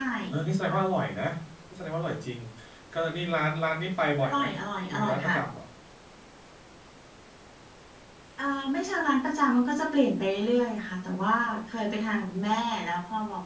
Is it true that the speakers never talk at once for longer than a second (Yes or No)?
Yes